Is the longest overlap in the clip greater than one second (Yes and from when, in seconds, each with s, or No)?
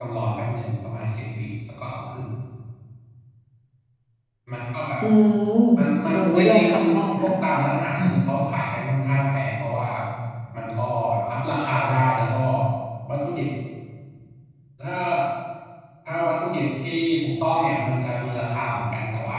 Yes, from 6.1 s